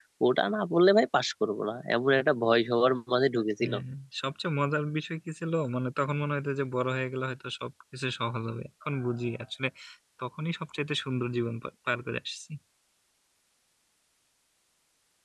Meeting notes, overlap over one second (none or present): none